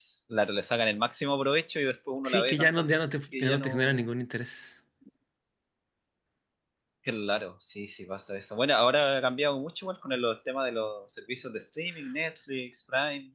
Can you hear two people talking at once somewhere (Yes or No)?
Yes